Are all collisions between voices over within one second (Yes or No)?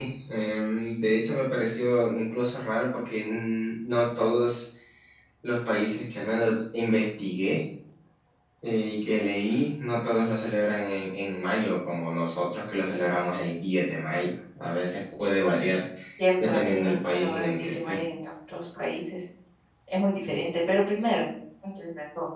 No